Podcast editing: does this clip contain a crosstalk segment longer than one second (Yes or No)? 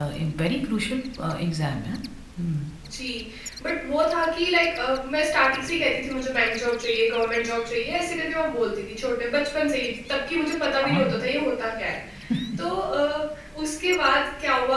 No